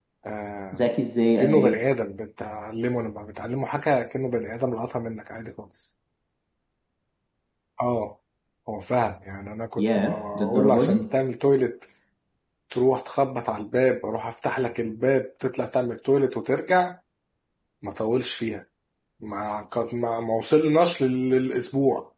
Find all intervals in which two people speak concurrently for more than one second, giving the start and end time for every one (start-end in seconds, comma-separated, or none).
9.8-11.0